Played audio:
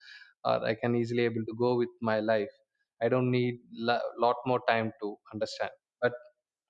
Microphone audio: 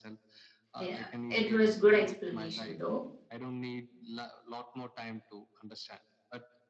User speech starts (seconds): 0.8 s

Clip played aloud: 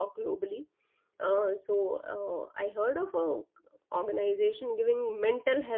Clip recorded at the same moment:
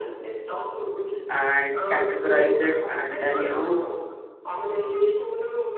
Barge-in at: 1.3 s

